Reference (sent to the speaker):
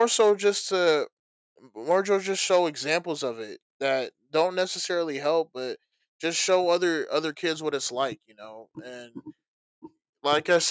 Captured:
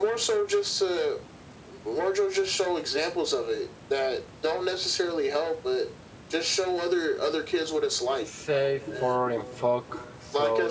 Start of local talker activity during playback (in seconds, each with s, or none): 8.2 s